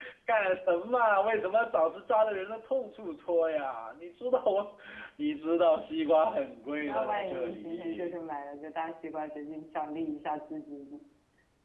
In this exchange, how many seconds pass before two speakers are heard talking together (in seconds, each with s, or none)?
6.8 s